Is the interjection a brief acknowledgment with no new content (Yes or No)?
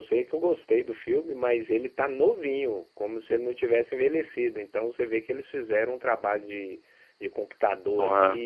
Yes